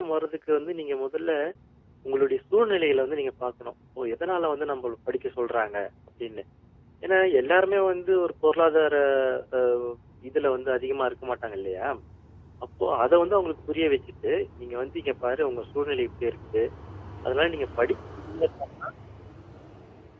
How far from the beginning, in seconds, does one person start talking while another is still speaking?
none

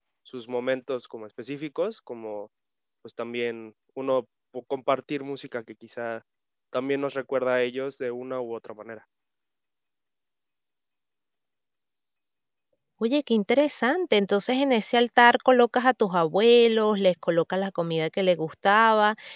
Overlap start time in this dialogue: none

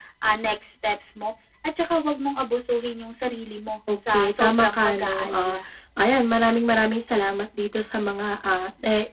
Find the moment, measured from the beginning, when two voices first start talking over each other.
3.9 s

